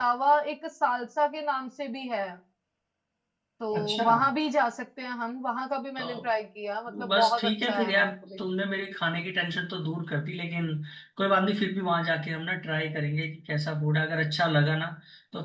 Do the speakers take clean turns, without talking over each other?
No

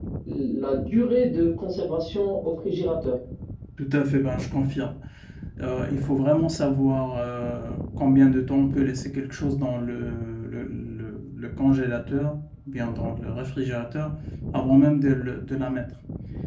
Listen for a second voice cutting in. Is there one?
No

